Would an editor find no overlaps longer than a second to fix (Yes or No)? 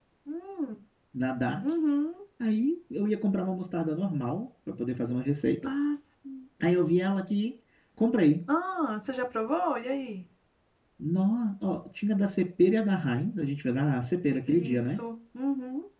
Yes